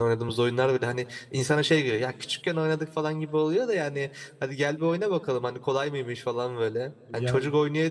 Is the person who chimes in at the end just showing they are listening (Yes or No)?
Yes